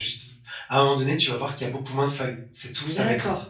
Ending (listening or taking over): taking over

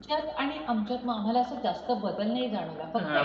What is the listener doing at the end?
taking over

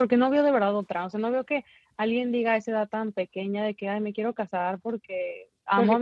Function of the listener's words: listening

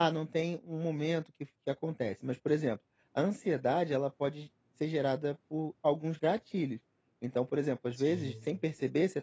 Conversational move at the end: listening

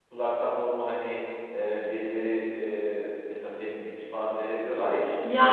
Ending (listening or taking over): taking over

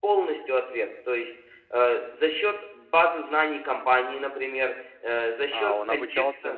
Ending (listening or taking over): taking over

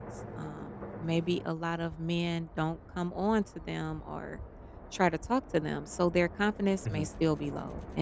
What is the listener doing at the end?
listening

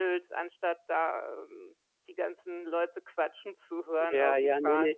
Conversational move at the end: taking over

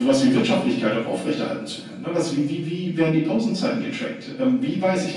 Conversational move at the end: listening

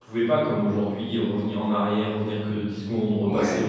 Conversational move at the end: listening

